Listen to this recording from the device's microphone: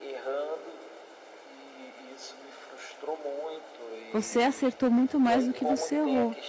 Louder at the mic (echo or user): user